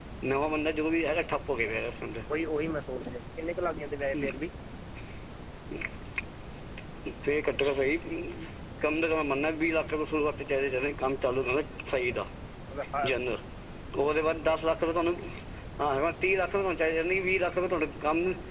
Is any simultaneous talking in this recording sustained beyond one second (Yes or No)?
No